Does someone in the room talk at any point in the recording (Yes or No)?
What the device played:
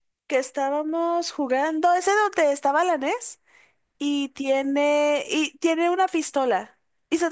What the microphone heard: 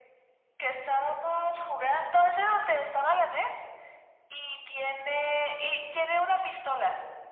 No